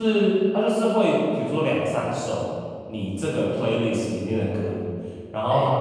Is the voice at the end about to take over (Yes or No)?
No